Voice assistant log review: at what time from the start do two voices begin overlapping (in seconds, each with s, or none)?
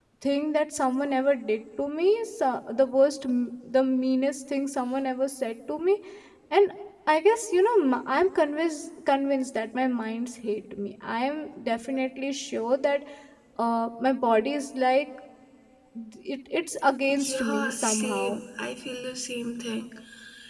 17.1 s